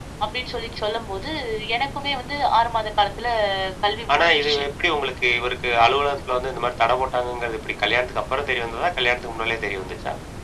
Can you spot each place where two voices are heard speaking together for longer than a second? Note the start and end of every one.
none

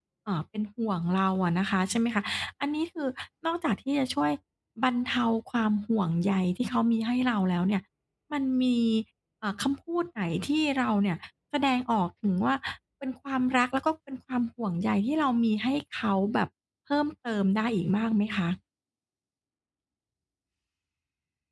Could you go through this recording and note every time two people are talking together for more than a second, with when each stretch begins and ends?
none

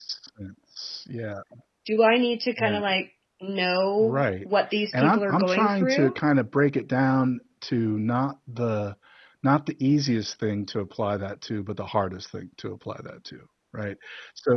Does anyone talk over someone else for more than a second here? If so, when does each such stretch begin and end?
4.9-6.1

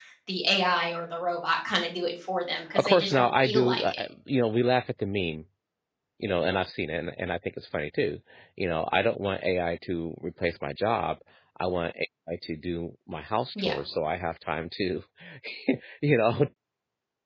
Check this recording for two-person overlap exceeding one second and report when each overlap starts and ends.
2.8-4.0

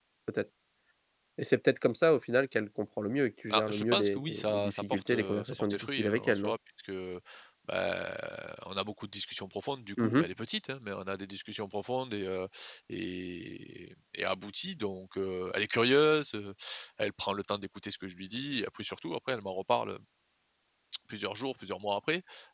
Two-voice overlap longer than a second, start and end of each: 3.5-6.5

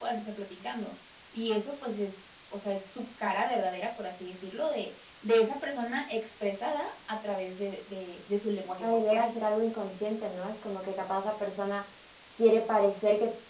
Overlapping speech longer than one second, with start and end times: none

